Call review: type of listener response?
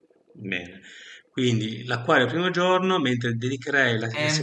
taking over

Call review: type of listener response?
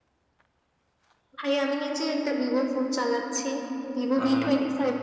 listening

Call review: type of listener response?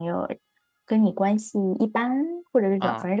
listening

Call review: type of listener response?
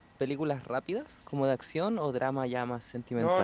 taking over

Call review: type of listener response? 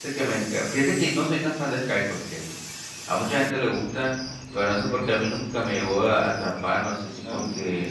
listening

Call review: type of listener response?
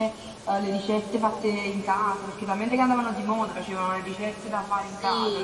taking over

